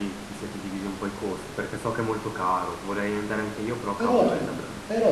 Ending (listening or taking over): taking over